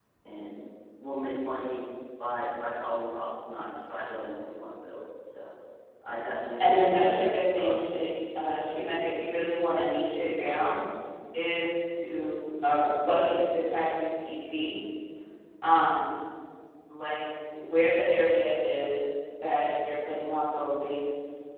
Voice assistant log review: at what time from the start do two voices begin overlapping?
6.6 s

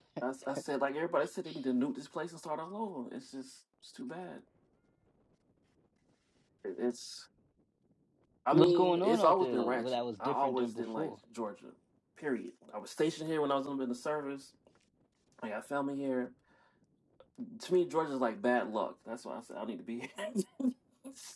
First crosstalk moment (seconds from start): 8.5 s

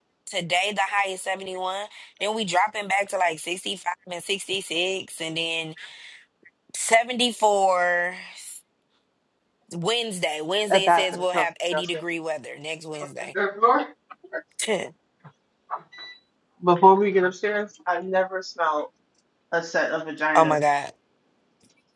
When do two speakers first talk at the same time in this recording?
10.7 s

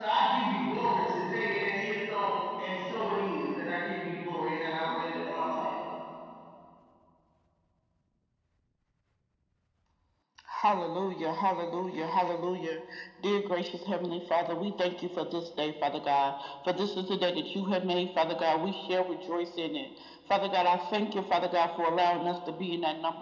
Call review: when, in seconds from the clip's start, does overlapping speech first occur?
none

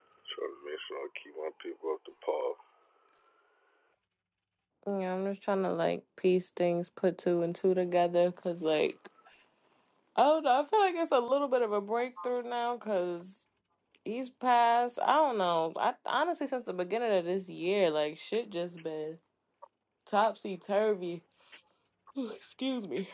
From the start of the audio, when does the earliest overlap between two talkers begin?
none

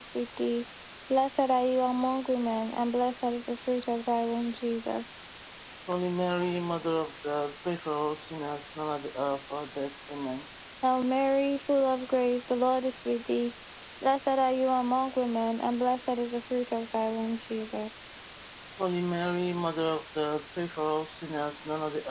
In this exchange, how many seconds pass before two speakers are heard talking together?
none

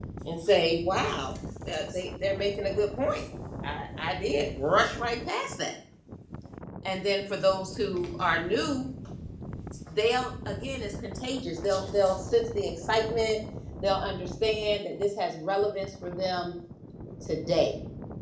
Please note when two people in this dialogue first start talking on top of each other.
none

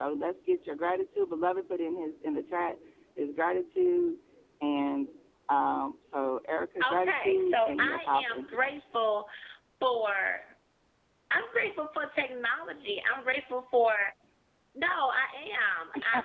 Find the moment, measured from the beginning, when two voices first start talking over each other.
6.9 s

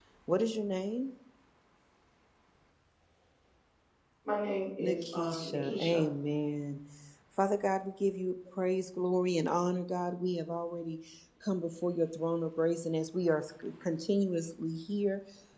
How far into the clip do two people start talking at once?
4.8 s

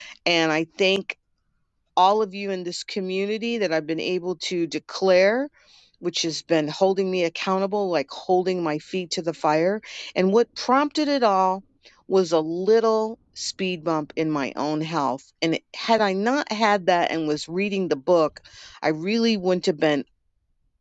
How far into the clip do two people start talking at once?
none

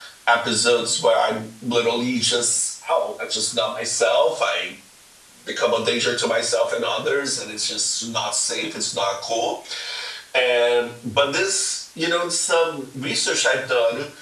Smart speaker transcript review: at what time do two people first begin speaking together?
none

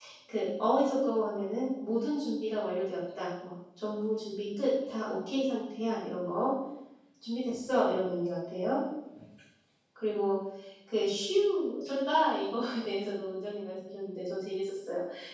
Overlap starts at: none

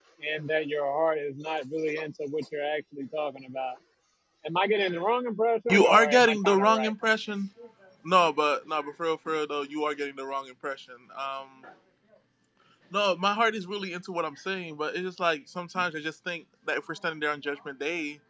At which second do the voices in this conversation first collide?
5.7 s

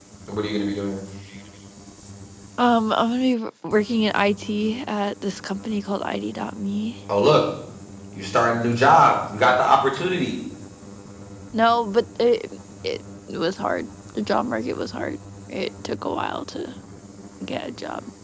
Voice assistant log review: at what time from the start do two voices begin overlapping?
none

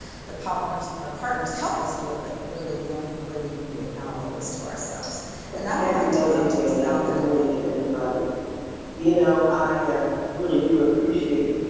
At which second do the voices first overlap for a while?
5.8 s

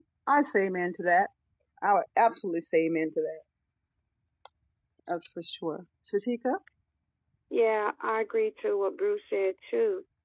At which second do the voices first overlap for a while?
none

